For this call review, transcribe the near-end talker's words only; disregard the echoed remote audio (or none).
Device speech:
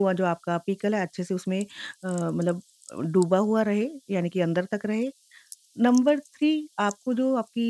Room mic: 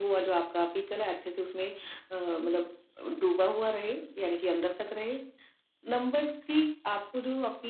none